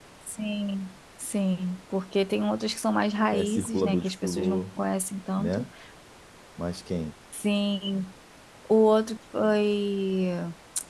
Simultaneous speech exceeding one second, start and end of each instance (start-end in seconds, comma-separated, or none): 3.3-4.6